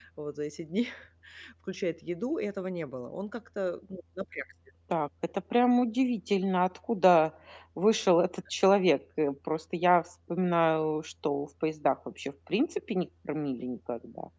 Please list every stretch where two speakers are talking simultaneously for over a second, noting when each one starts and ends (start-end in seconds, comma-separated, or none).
none